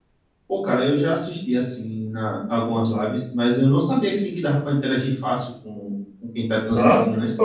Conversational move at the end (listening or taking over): taking over